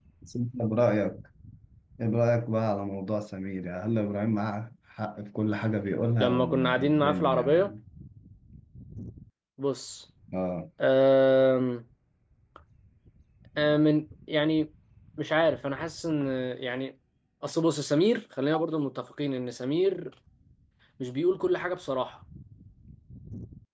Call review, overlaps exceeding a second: present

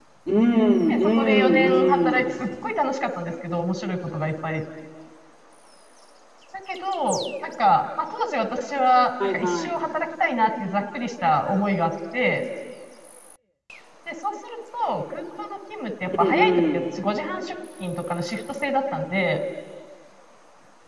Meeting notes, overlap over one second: present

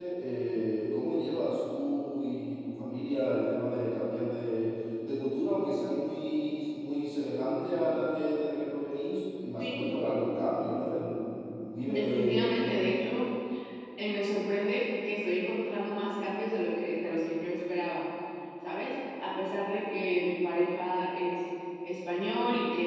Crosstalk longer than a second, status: none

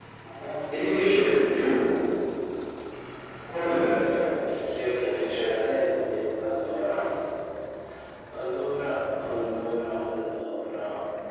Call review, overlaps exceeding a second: none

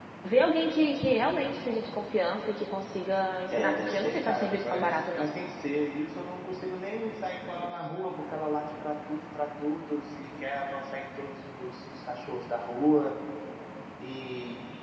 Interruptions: present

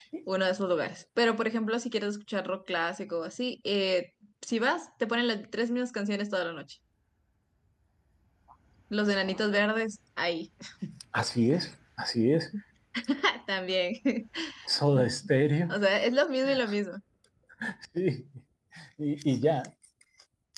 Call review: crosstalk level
none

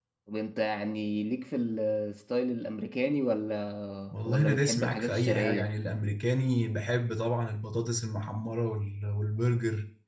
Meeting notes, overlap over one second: present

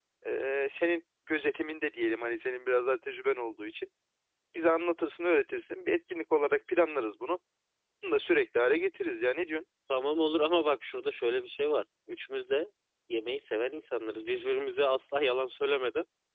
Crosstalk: none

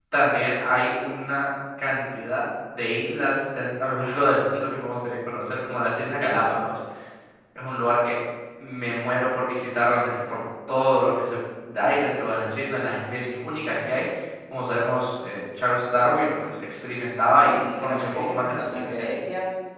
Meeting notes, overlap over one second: present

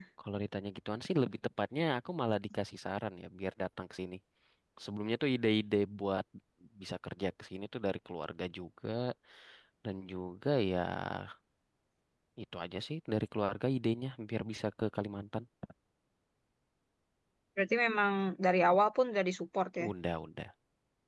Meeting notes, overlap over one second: none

